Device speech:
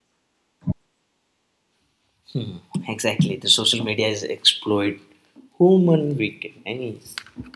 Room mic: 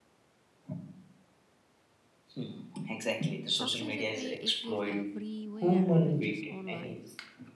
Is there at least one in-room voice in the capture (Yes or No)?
Yes